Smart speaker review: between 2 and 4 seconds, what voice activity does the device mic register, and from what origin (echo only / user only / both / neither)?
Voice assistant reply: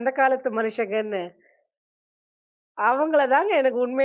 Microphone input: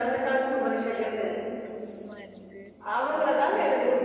both